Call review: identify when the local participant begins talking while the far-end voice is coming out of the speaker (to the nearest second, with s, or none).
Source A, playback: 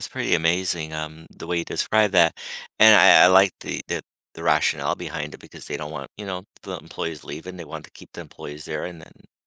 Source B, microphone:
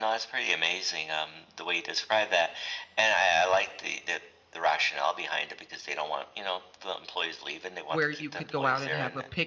8 s